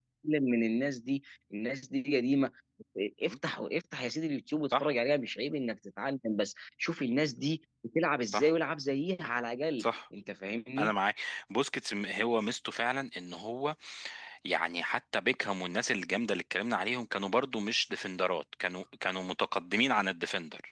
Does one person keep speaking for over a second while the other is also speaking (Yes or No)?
No